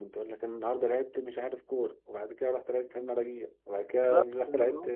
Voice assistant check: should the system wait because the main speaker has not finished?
No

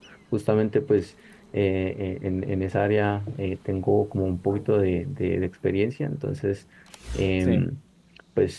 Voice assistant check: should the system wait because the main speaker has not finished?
Yes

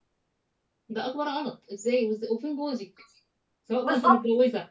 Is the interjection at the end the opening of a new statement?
No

